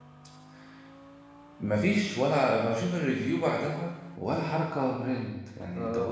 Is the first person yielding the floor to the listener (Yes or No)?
Yes